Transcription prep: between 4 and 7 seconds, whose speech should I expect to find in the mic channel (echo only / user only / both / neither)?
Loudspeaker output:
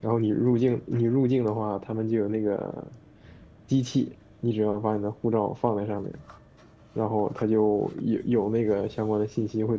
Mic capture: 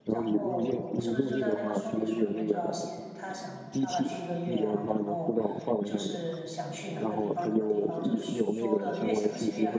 both